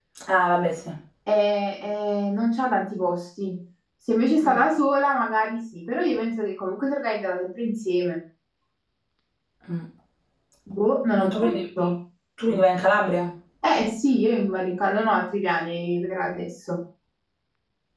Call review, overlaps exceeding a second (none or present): none